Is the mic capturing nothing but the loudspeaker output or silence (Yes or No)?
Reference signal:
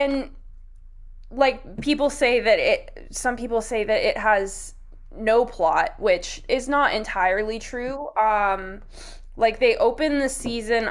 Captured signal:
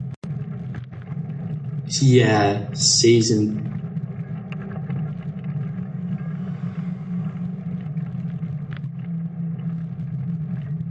No